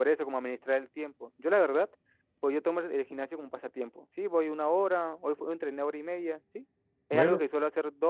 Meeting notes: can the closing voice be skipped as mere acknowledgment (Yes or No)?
Yes